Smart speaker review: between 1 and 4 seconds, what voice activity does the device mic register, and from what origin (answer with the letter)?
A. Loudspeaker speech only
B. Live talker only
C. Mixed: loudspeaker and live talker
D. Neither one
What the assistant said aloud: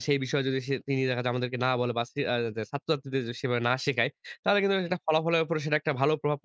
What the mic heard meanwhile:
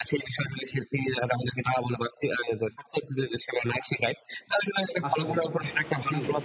A